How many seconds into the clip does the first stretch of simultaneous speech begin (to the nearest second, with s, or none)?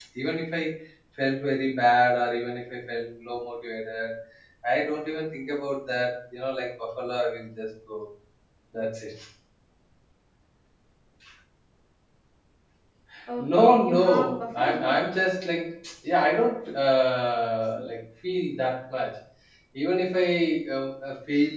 14 s